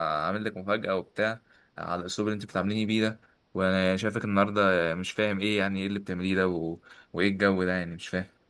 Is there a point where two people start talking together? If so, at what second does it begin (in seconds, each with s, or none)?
none